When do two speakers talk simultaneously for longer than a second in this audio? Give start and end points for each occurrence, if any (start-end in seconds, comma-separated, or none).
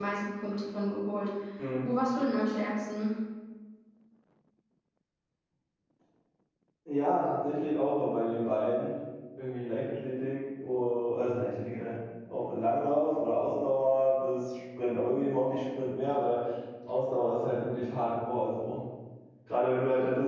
none